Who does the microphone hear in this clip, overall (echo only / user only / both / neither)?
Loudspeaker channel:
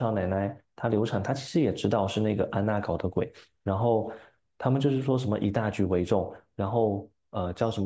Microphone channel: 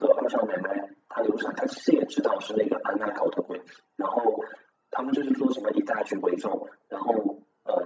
echo only